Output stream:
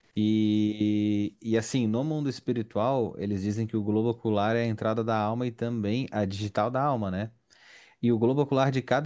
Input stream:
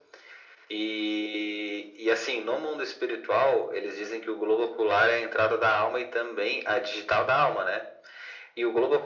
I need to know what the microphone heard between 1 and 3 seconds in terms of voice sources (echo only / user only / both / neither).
echo only